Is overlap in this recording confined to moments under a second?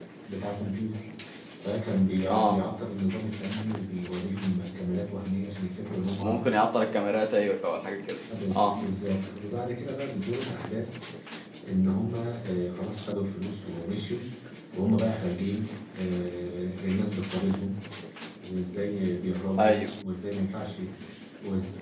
Yes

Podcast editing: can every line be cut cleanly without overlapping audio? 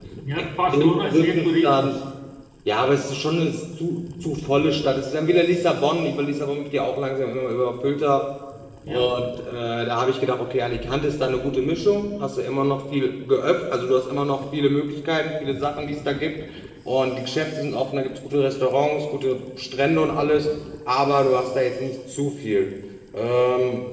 No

